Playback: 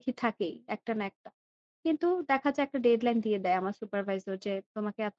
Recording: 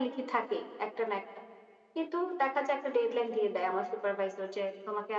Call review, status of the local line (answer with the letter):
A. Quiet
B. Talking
A